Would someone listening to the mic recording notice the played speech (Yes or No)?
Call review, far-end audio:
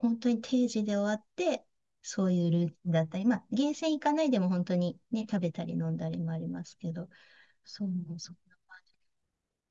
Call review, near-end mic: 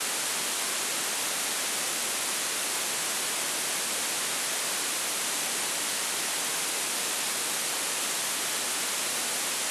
No